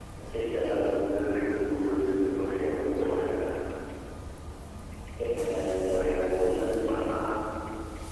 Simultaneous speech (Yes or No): Yes